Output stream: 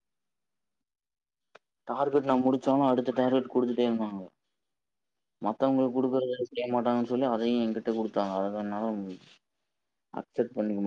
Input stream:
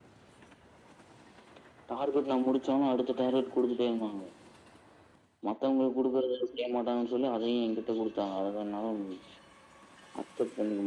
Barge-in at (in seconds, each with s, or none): none